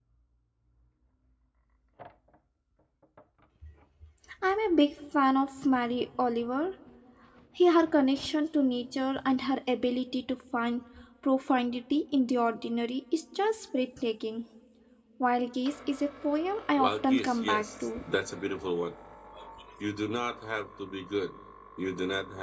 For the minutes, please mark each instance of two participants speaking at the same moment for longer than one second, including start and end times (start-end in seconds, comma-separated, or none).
16.8-18.0